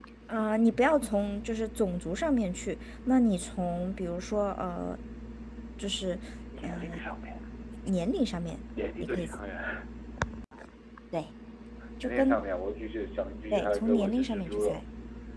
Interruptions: present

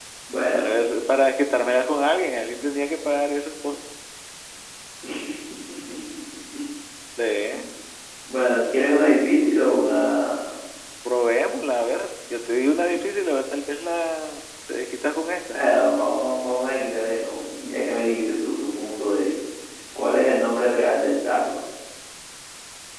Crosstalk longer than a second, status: none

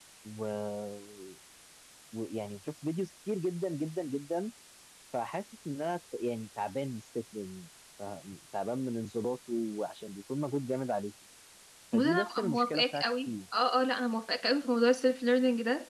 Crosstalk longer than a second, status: present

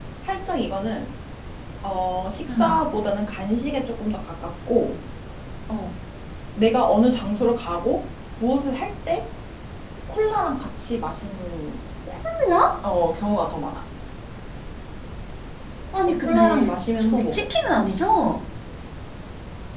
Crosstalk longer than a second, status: present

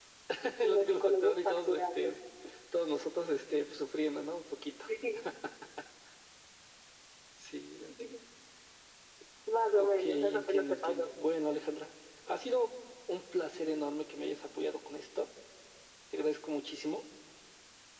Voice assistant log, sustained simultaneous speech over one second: present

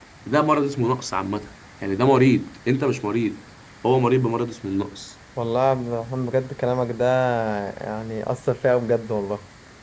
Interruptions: none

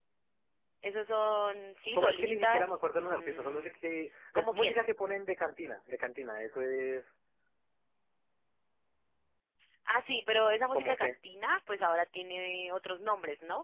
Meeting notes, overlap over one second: present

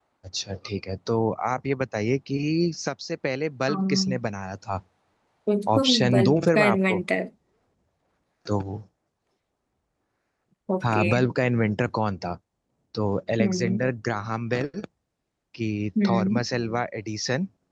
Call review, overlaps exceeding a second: present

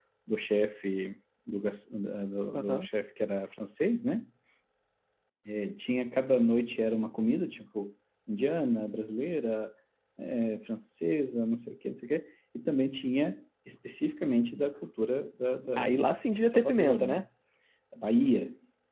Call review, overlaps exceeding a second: present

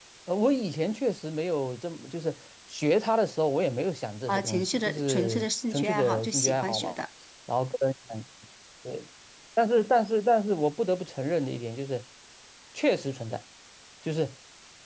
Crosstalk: present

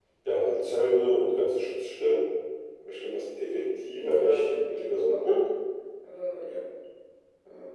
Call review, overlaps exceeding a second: present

